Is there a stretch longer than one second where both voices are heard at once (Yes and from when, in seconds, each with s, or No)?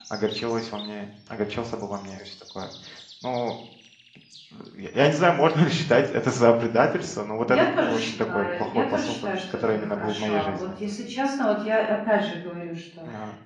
Yes, from 7.5 s